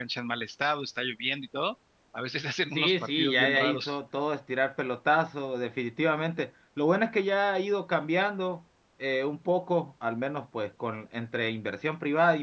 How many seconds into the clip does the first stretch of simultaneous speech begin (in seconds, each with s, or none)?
2.7 s